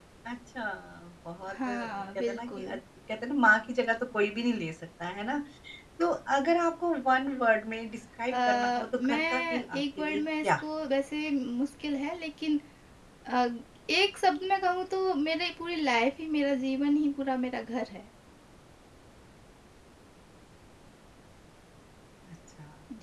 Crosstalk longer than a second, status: present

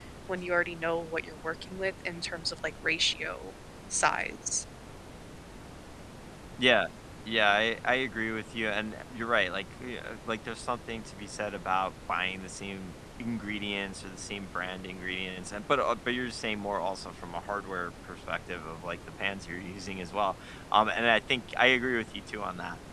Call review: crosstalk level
none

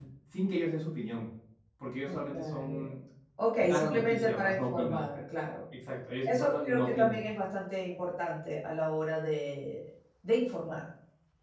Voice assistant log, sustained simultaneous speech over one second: present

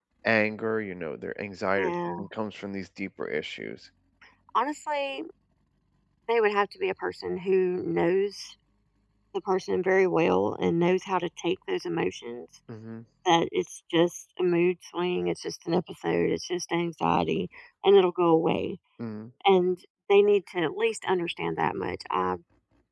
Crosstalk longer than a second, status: none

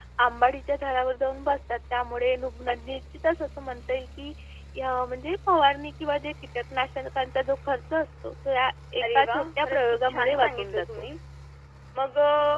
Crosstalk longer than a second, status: present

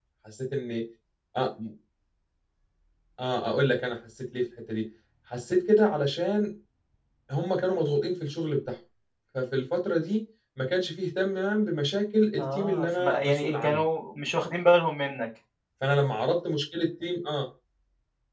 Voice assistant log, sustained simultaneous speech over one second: present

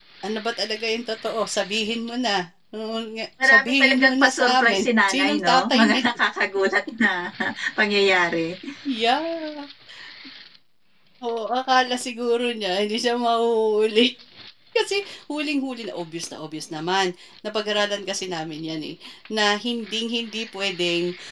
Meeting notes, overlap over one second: present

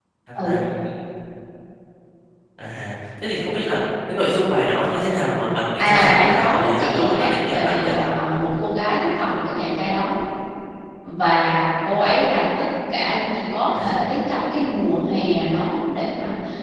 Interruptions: present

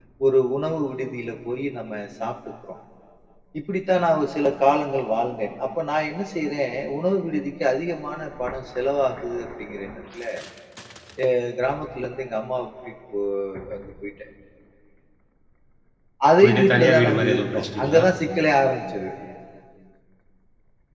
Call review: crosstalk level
present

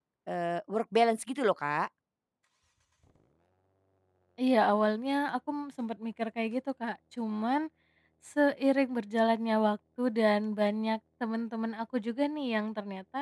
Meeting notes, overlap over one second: none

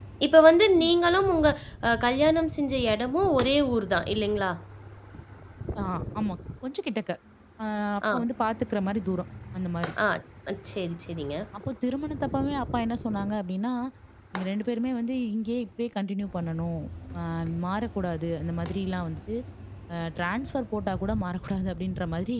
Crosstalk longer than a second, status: none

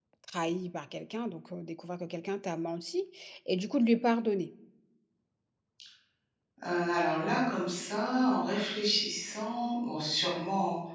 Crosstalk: none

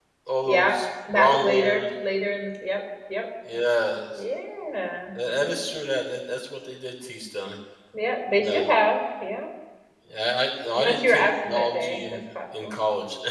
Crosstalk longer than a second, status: present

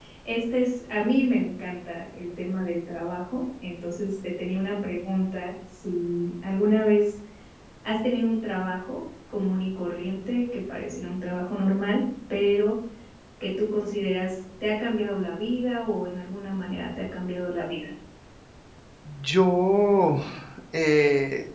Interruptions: none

